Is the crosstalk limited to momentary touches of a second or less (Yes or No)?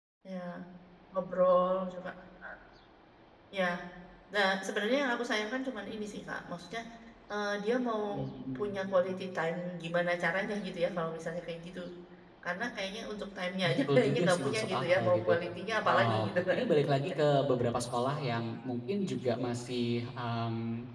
No